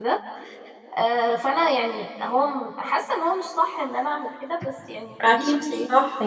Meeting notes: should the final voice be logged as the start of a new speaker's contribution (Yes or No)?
Yes